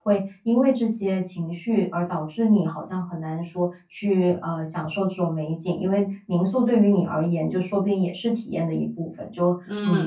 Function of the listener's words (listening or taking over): taking over